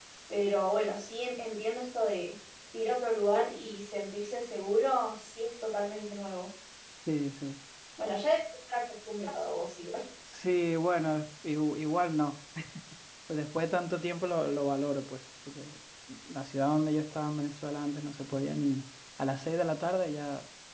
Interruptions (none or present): none